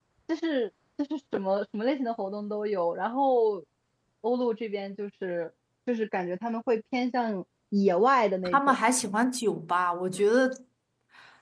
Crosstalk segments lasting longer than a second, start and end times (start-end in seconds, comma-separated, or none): none